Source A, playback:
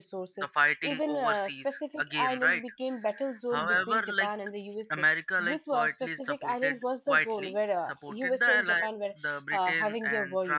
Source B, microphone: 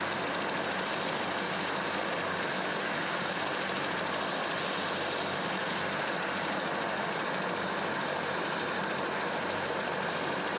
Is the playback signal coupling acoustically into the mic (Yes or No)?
No